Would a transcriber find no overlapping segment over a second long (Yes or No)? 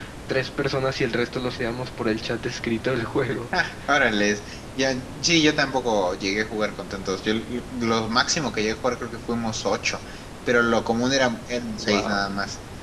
Yes